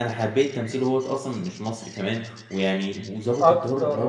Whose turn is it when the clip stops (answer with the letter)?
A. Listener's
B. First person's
A